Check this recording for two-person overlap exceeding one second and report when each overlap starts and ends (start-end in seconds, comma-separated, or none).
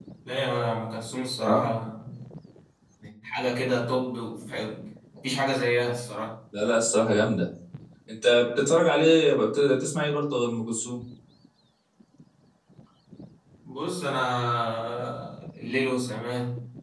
none